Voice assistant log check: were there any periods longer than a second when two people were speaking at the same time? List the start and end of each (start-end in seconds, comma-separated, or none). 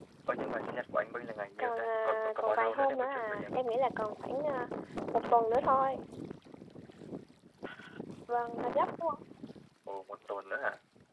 1.6-3.5